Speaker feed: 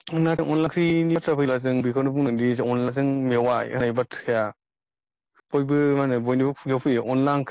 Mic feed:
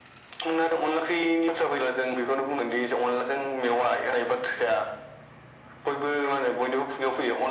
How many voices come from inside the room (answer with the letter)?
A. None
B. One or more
A